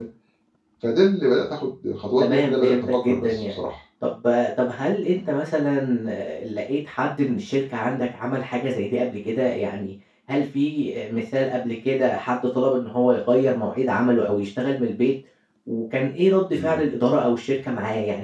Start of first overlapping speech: 2.2 s

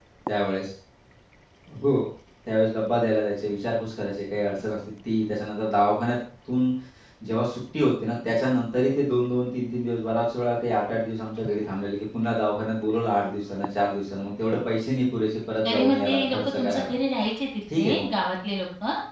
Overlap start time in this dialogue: 15.7 s

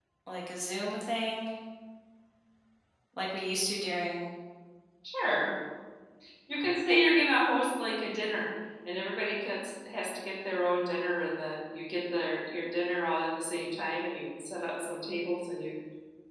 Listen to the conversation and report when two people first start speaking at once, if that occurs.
none

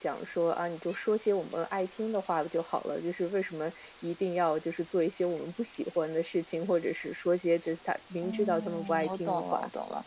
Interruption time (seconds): 8.2 s

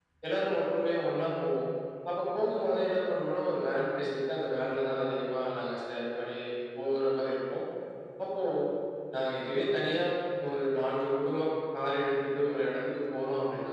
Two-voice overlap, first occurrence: none

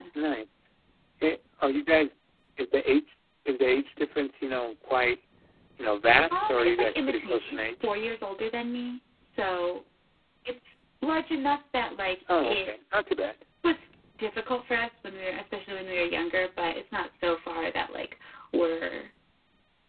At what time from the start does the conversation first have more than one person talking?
6.3 s

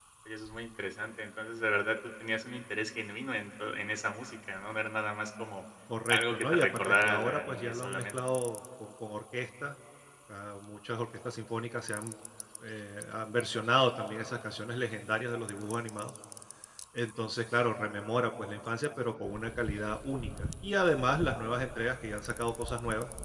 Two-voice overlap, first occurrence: 6.1 s

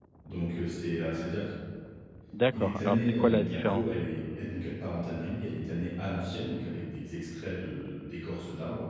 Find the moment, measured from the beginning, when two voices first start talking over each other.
2.5 s

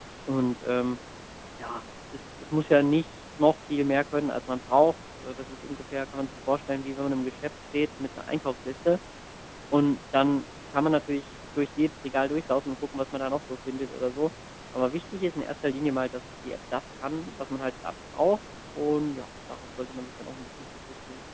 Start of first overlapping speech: none

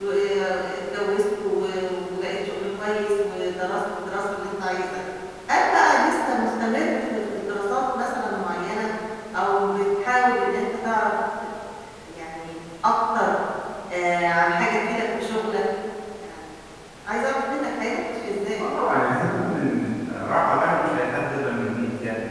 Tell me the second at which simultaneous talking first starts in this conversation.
none

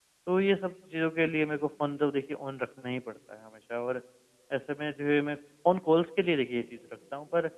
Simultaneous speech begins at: none

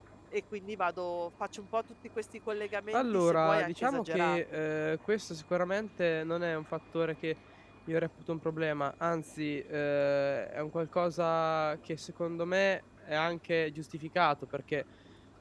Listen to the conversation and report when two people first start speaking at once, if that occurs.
2.9 s

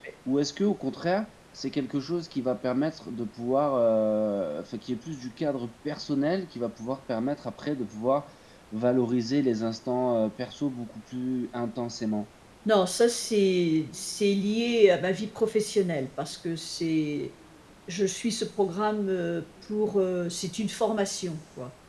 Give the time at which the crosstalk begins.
none

